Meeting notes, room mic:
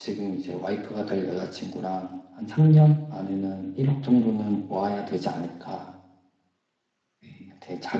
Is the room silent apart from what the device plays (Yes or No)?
Yes